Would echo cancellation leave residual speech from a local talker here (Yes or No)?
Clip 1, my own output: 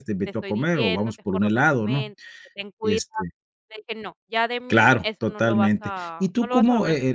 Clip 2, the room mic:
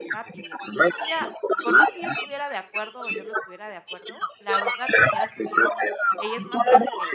Yes